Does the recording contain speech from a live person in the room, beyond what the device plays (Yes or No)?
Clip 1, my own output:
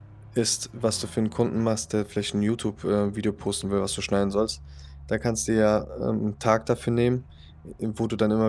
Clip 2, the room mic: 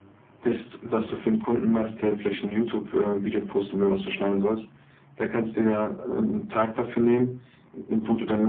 No